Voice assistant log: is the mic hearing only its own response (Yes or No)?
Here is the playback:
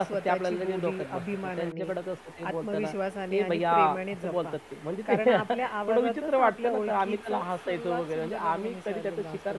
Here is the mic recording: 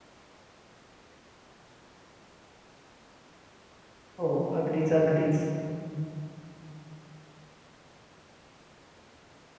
No